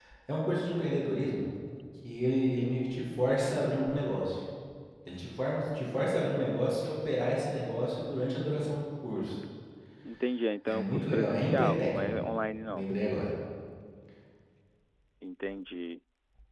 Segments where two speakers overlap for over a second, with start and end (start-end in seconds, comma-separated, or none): 10.7-12.2